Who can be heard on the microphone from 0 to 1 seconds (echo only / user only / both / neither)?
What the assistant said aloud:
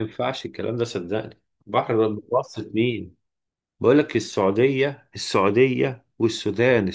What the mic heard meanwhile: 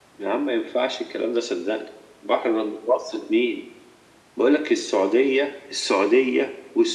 echo only